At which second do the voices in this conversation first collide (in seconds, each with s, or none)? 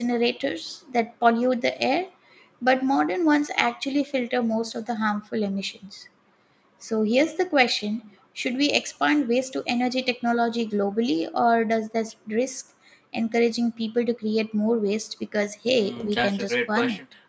15.8 s